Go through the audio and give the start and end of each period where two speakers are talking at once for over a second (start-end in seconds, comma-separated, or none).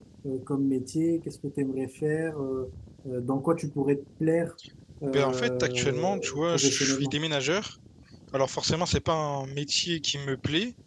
5.1-7.1